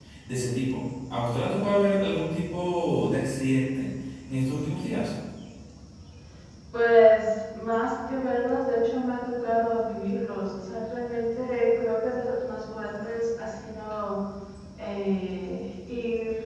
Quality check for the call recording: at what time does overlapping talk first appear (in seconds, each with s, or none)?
none